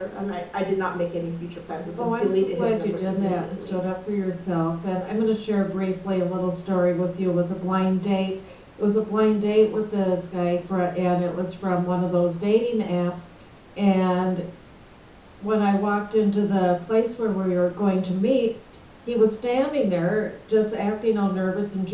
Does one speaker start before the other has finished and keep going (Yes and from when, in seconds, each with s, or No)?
Yes, from 2.0 s